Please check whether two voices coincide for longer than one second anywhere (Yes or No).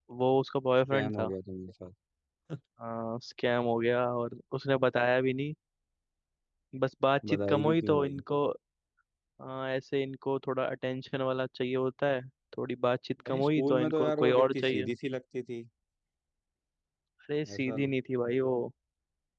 Yes